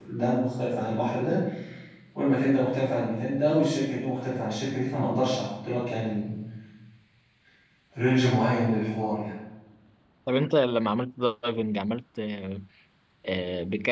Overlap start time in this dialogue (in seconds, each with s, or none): none